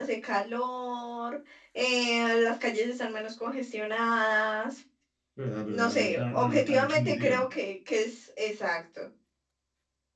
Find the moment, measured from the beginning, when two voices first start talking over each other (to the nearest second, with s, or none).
6 s